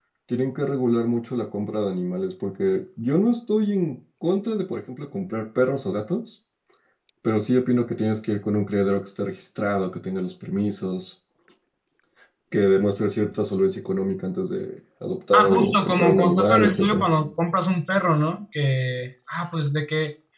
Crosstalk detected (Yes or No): Yes